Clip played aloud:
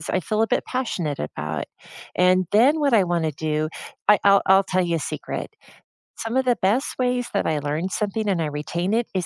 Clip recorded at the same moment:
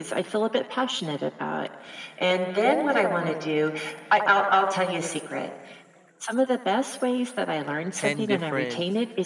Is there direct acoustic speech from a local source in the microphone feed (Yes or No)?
Yes